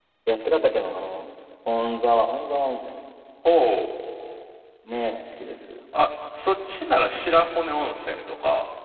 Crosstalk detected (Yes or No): No